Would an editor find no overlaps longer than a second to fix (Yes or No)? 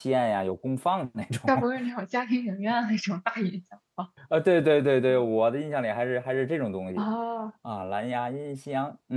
Yes